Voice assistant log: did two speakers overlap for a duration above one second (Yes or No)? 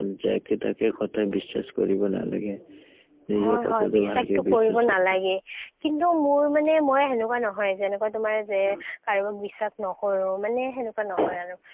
Yes